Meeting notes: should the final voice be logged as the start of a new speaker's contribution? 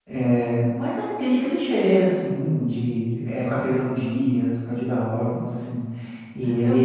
No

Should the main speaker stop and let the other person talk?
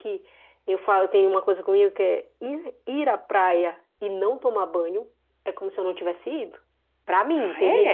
No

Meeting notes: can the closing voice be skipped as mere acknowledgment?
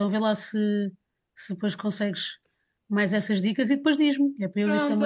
No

